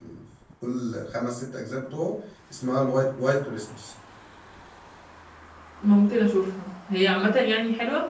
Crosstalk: none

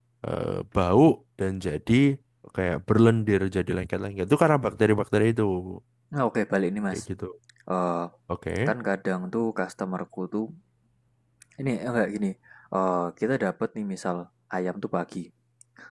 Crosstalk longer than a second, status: none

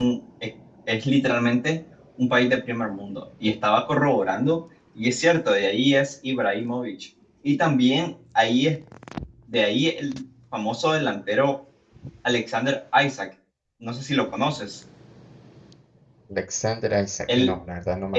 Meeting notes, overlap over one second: none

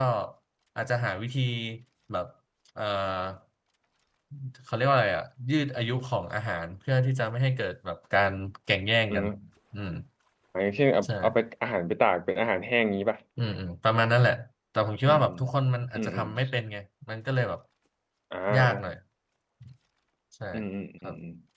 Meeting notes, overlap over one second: none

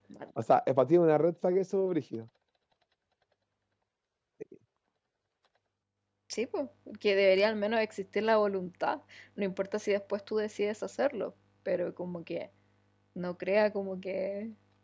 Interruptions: none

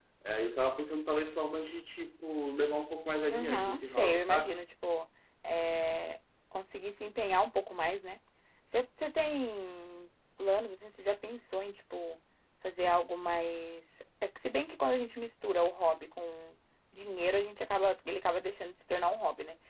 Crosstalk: present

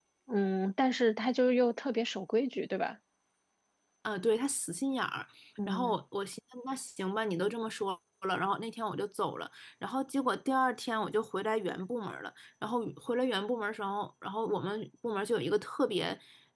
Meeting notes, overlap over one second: none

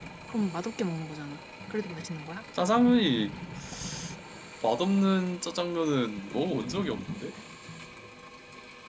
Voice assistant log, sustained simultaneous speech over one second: none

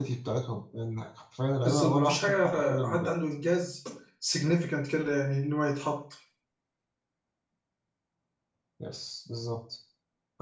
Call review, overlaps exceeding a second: present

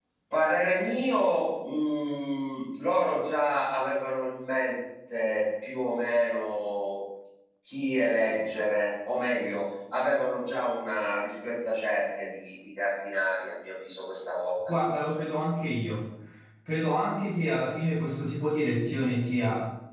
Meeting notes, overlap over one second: none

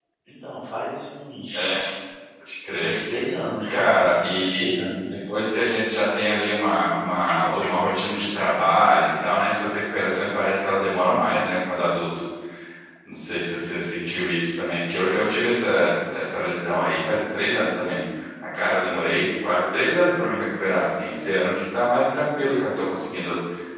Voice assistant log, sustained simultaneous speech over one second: present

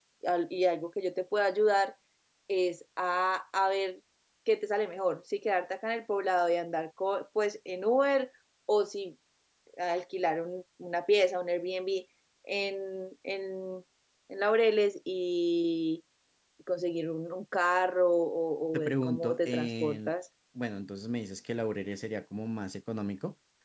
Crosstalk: present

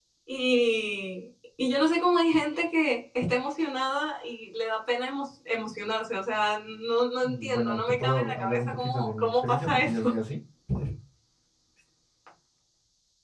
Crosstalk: present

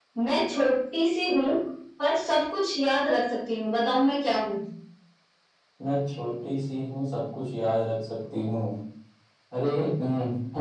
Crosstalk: none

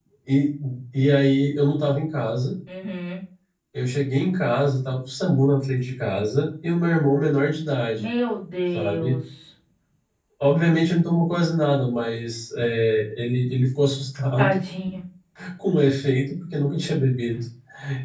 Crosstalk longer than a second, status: none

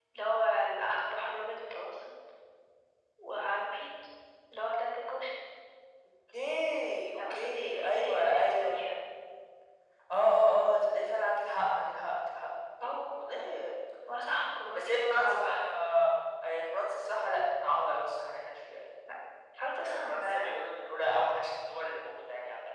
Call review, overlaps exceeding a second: present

